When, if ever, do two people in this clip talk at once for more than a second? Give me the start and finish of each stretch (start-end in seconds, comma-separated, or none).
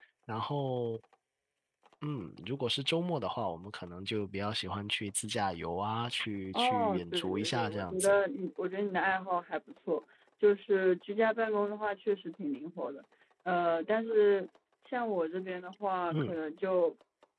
6.5-8.2